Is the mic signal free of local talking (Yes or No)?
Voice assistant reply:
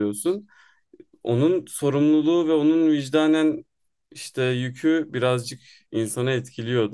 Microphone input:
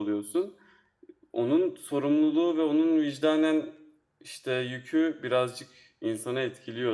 Yes